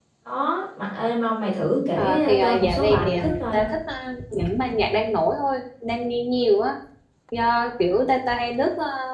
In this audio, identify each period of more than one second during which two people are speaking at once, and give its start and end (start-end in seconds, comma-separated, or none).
2.0-3.6